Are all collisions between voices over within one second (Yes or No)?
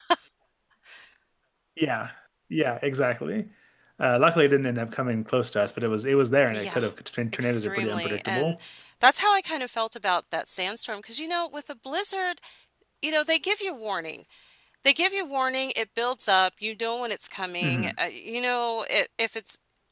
No